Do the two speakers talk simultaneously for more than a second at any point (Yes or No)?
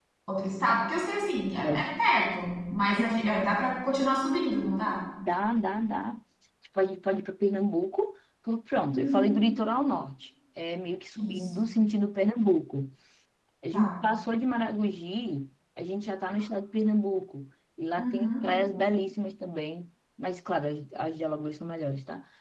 No